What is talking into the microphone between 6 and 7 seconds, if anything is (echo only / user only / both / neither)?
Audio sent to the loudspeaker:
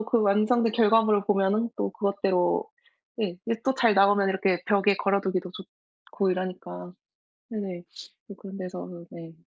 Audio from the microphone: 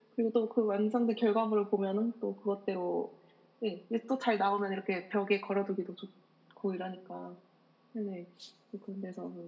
echo only